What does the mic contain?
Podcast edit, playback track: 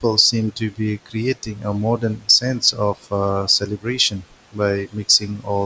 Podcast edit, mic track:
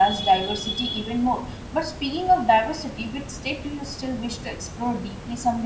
user only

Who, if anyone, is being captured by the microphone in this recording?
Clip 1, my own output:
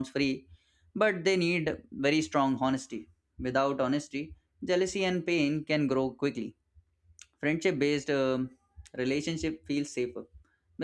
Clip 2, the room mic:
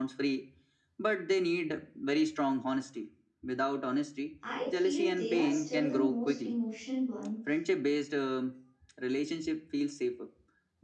both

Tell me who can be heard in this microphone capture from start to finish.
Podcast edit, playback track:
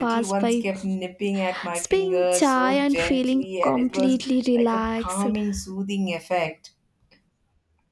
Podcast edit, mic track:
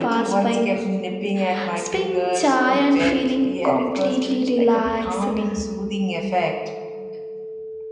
echo only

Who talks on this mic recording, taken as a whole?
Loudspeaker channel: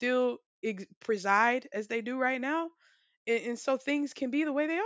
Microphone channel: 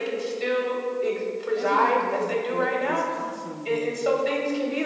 both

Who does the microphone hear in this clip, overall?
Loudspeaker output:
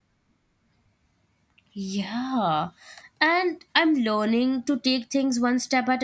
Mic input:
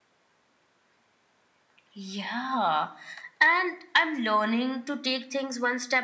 echo only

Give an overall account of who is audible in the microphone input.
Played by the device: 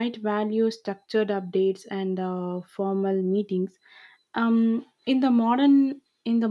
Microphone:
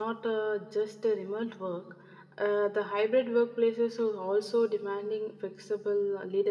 user only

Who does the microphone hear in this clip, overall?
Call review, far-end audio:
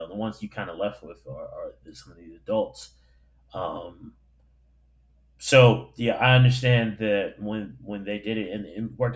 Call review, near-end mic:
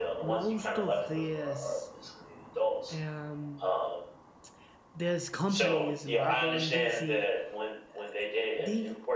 both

